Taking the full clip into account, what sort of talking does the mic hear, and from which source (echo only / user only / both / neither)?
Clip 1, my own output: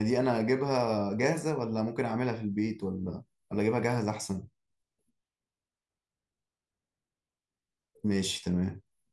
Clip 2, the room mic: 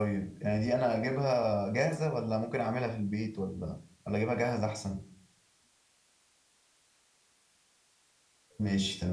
echo only